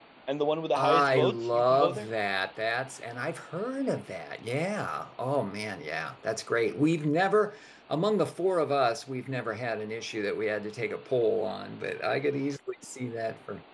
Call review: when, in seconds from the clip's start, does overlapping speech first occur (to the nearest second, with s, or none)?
1 s